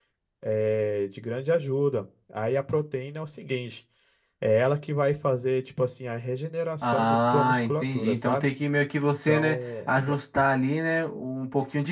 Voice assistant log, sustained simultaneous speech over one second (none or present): present